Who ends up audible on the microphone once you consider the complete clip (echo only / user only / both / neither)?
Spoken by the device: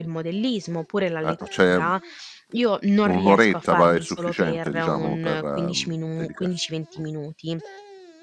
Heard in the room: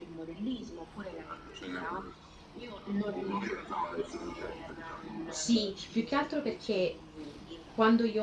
both